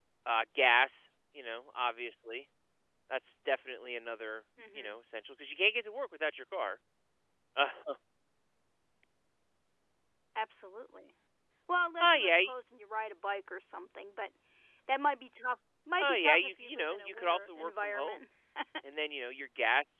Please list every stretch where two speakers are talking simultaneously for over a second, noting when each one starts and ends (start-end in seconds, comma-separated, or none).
16.0-18.2